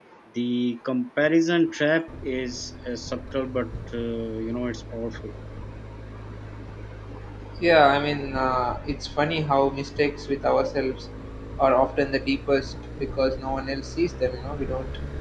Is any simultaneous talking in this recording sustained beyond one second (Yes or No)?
No